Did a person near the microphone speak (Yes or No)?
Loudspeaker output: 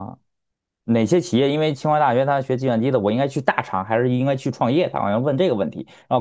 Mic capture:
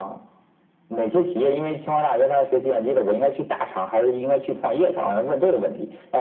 No